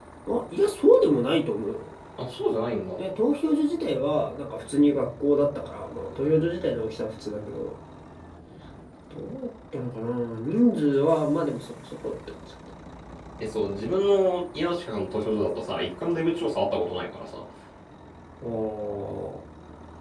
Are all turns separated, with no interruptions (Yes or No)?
Yes